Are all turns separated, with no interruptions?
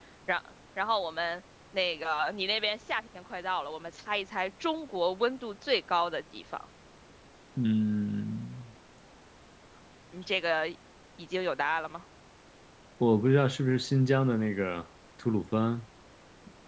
Yes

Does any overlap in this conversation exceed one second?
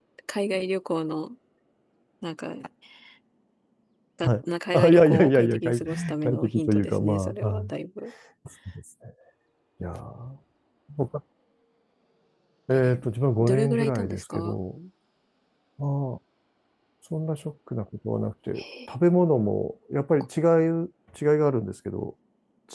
Yes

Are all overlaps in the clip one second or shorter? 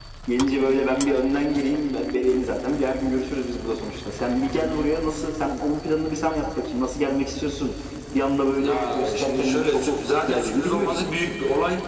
No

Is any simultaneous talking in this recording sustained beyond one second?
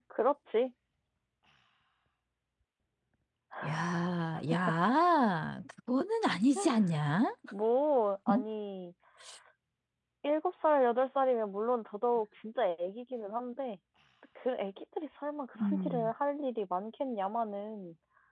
No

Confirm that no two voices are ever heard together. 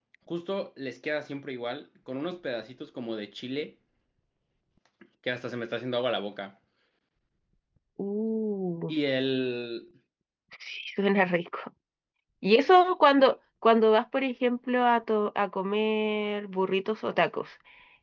Yes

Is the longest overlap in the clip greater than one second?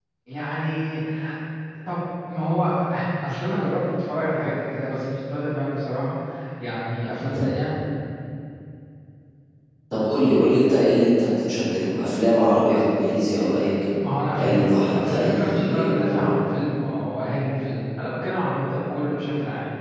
Yes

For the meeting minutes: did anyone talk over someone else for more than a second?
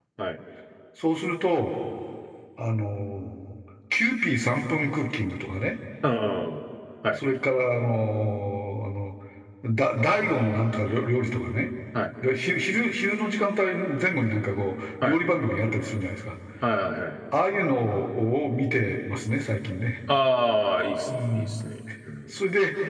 No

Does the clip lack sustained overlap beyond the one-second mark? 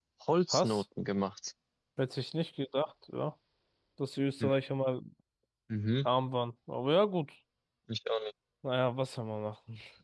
Yes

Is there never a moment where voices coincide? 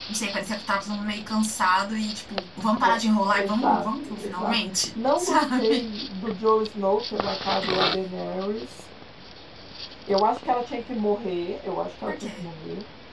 No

